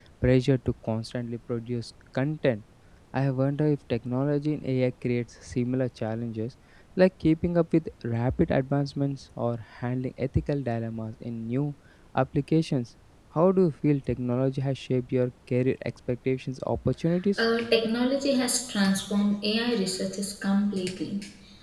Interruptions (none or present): none